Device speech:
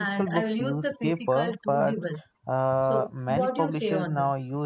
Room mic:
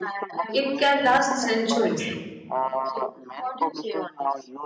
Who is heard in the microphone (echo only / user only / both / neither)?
both